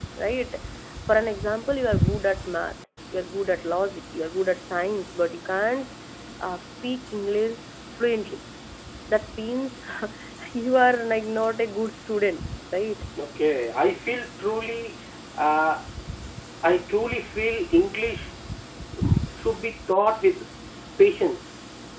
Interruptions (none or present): none